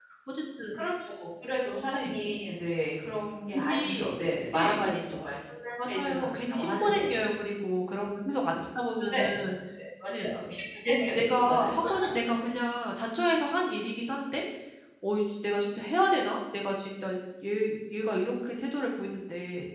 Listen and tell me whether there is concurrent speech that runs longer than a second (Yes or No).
Yes